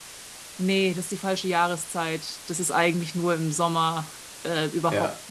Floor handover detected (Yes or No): No